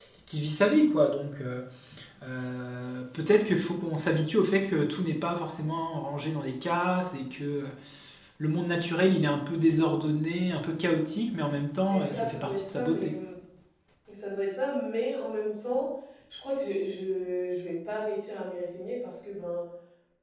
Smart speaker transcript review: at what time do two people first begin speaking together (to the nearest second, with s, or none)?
12 s